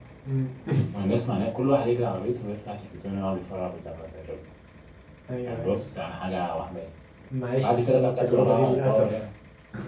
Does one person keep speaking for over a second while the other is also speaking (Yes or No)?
Yes